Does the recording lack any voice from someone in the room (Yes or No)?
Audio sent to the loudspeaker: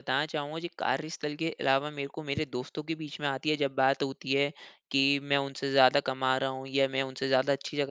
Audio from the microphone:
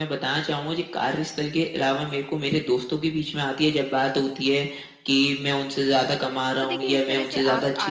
No